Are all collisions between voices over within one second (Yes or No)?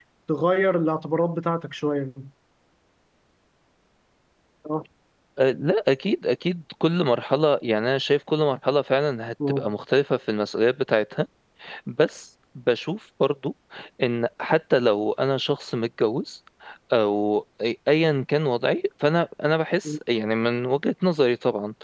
Yes